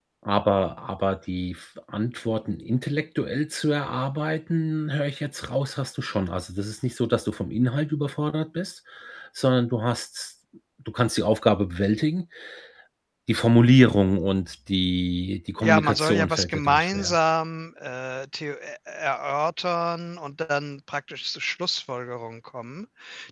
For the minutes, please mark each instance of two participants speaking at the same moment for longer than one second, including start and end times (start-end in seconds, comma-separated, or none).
15.6-17.2